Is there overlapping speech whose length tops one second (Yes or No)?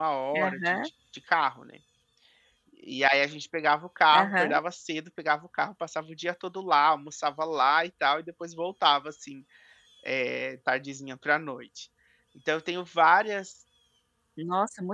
No